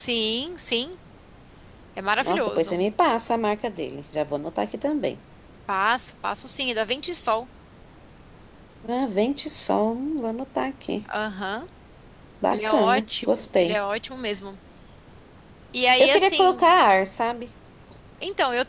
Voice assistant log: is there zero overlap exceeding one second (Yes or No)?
No